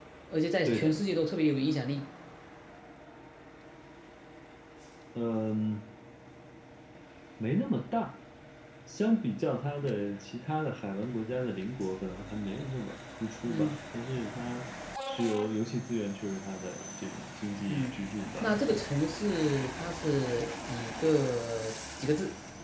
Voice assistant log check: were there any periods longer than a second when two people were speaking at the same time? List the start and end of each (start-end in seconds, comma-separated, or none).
none